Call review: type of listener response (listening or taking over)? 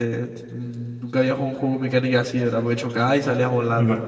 taking over